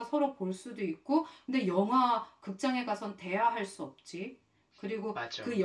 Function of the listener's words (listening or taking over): listening